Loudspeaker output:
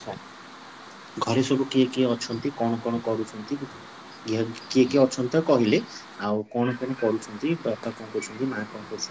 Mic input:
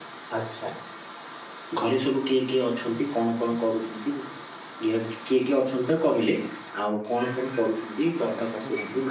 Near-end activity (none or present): present